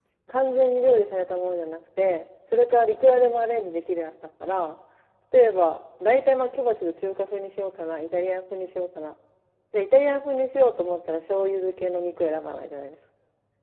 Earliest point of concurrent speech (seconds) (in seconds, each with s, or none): none